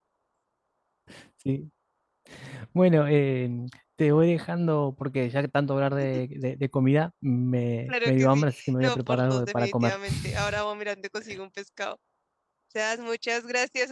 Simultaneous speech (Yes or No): Yes